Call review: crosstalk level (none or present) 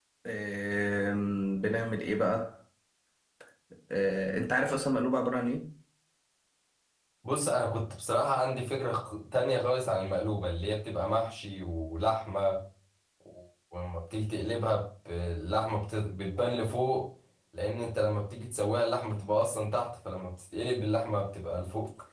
none